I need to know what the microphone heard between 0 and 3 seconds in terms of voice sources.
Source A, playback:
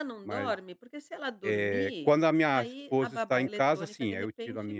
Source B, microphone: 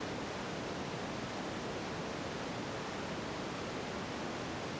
neither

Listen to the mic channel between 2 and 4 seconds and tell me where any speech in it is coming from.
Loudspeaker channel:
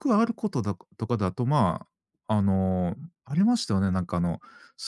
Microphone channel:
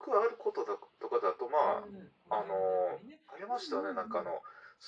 both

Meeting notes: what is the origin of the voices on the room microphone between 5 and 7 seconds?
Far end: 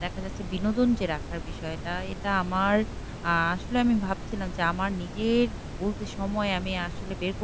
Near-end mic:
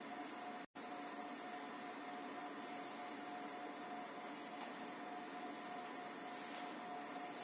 neither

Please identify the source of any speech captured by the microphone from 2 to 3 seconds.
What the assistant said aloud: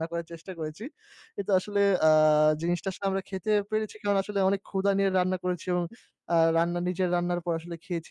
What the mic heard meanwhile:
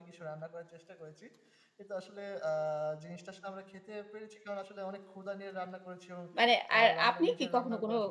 echo only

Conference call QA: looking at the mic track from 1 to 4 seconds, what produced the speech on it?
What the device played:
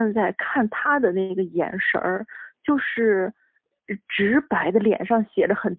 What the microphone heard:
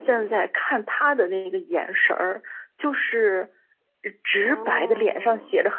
echo only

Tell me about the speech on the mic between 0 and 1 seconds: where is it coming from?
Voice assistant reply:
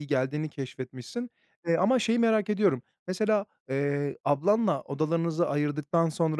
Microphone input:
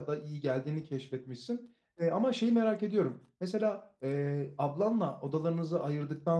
echo only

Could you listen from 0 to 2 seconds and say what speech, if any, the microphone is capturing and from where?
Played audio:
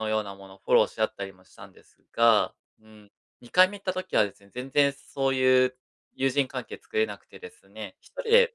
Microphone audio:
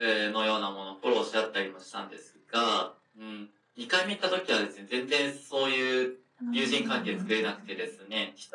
echo only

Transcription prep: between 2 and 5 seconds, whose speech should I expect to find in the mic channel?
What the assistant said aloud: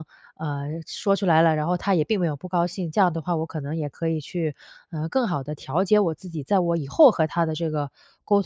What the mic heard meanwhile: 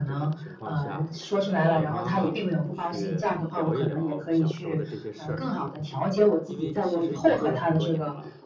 both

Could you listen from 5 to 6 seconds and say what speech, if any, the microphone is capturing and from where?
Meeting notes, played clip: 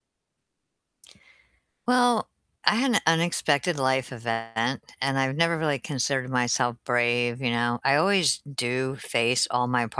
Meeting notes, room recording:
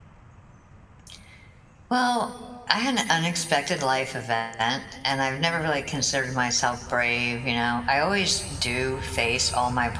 echo only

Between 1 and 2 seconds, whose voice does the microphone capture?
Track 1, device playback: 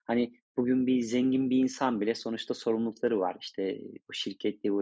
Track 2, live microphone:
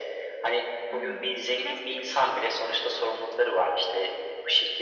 both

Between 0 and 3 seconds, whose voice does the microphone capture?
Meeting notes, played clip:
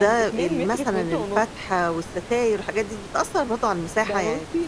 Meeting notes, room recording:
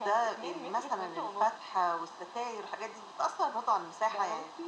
echo only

